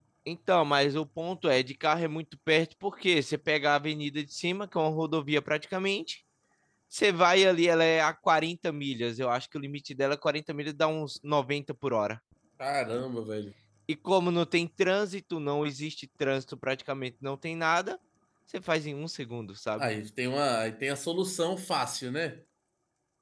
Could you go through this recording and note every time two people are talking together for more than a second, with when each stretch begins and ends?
none

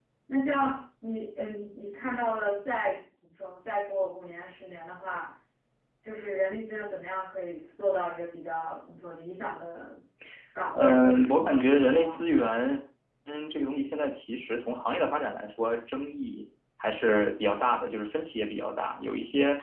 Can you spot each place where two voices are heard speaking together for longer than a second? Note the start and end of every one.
10.7-12.2

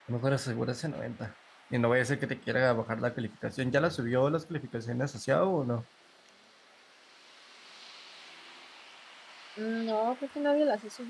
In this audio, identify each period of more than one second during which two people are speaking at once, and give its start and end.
none

